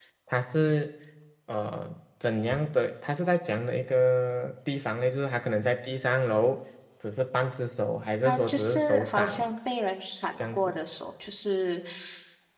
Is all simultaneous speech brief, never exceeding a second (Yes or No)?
No